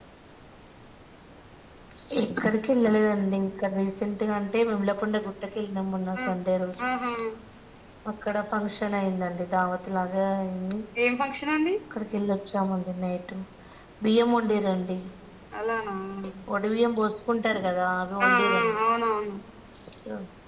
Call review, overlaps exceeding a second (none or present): none